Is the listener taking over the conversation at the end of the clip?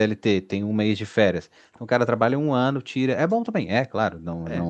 No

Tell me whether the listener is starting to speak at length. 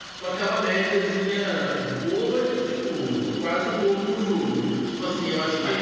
Yes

